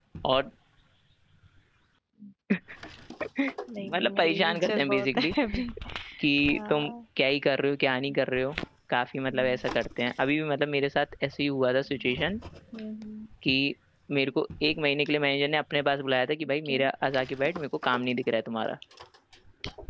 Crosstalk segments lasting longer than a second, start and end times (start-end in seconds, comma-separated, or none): 3.8-5.3